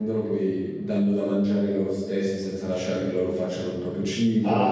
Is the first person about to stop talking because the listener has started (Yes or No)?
Yes